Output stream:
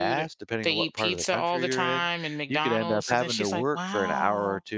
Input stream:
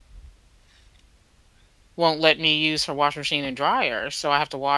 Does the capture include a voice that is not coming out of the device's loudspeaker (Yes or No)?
Yes